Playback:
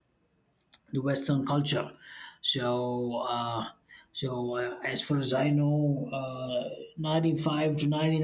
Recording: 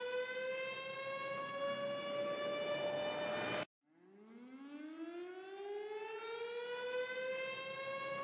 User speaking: No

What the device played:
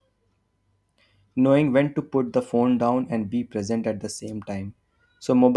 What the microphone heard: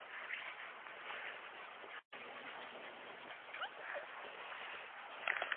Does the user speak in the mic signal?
No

